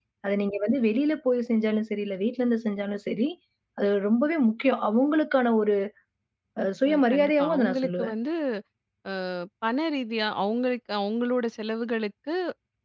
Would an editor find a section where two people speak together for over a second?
Yes, from 6.8 s

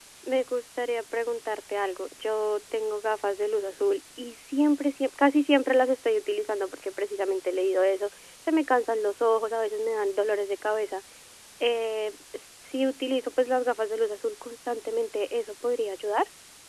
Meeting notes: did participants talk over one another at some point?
No

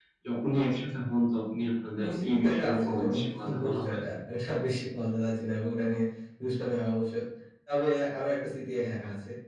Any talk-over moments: Yes, from 2.0 s

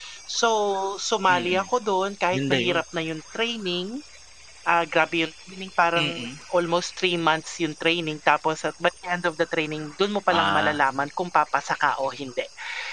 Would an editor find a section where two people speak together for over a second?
No

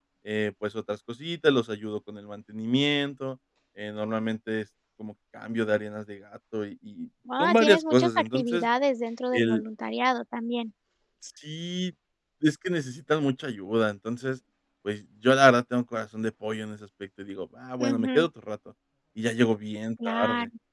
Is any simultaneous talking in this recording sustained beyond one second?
Yes, from 7.4 s

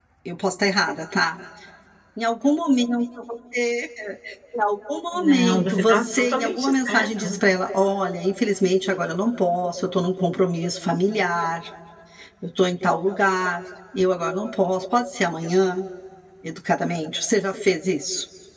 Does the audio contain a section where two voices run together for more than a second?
Yes, from 5.2 s

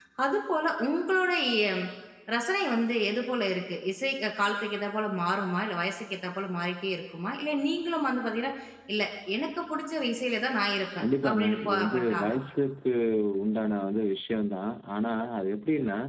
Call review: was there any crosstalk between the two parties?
Yes, from 11.0 s

